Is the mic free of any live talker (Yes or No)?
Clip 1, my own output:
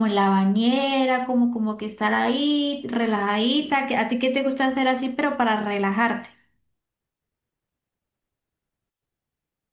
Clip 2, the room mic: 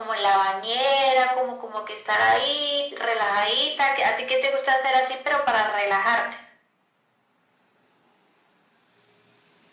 Yes